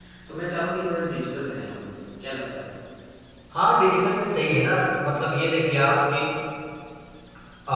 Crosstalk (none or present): none